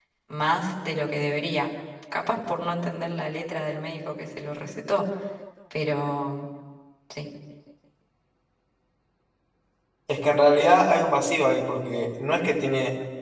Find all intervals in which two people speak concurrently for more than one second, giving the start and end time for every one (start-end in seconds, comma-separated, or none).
none